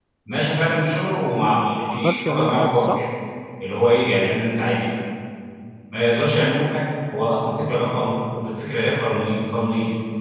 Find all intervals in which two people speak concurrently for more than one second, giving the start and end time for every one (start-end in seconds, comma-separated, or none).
1.3-3.0